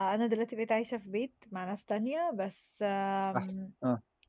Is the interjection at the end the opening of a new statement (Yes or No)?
No